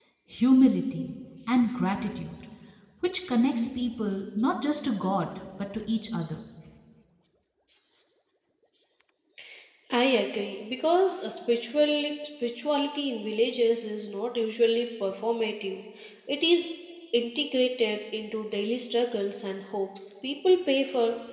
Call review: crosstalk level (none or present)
none